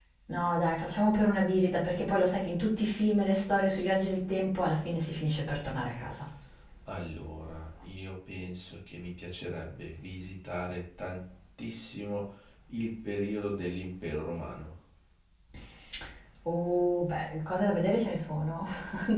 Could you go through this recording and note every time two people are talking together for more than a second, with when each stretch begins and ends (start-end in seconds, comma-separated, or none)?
none